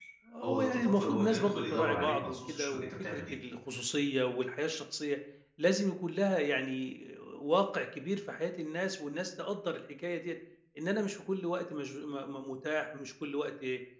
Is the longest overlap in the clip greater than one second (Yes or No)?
Yes